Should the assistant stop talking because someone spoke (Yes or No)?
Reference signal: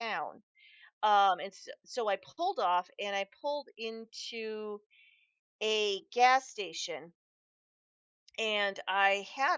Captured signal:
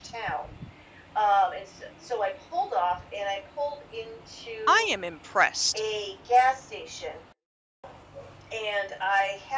Yes